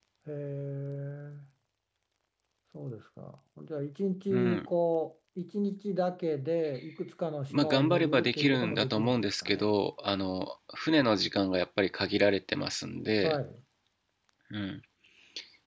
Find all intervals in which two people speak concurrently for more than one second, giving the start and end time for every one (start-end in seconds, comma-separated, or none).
7.5-9.7